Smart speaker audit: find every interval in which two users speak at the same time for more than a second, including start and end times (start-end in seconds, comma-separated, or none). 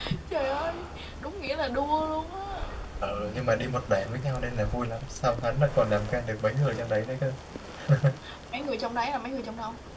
none